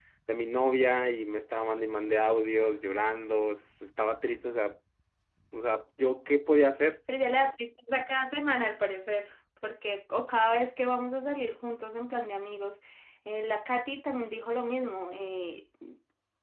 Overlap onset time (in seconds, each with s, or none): none